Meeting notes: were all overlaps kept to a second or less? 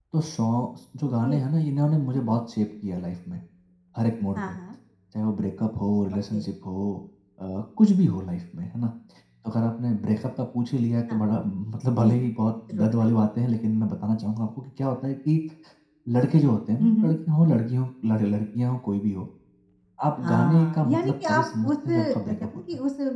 No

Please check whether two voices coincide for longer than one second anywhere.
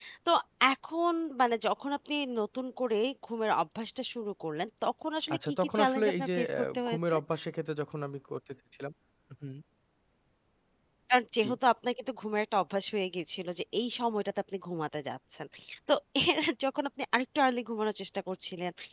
Yes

